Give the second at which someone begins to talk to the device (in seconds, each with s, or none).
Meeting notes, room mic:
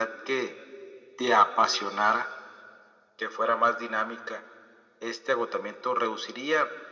none